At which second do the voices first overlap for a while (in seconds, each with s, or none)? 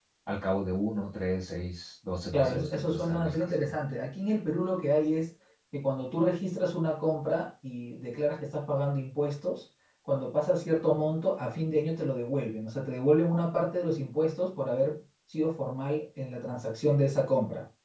2.3 s